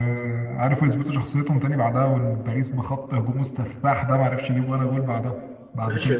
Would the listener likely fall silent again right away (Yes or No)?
No